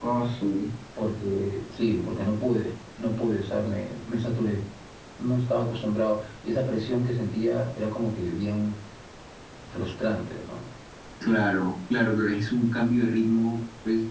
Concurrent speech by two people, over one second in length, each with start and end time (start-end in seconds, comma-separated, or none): none